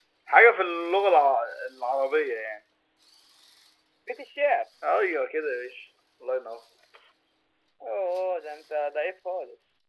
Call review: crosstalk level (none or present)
none